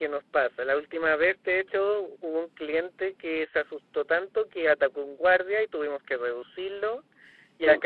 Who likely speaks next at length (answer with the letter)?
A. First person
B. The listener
A